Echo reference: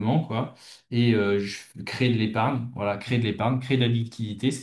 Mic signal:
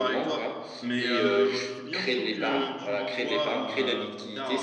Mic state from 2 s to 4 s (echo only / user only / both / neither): both